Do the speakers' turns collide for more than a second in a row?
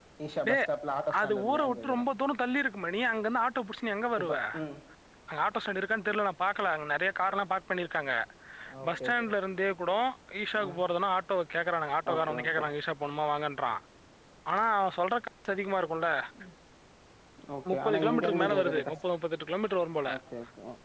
Yes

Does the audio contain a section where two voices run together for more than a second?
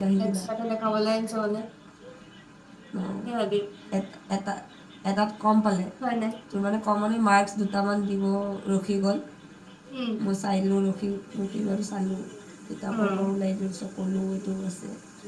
No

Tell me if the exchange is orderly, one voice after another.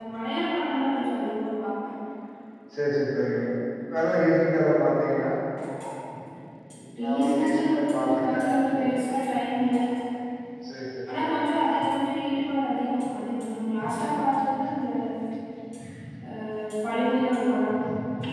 No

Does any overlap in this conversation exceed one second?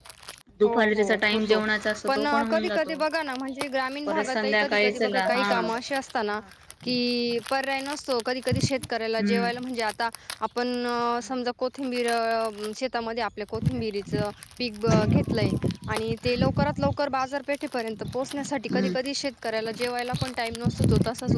Yes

